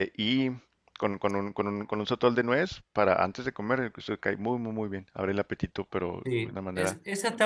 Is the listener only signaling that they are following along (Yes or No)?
No